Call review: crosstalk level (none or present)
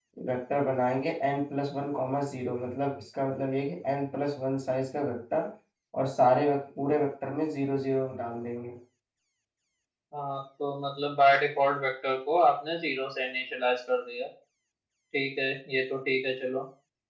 none